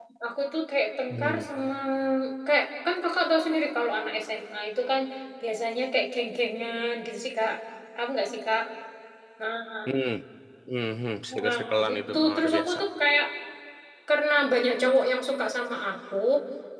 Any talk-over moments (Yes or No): Yes